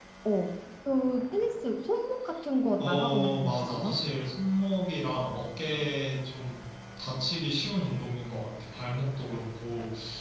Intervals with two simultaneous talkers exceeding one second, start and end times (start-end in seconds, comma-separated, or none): 2.8-4.0